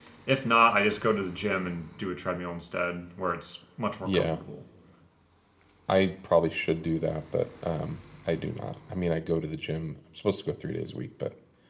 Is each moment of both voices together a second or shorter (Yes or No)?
Yes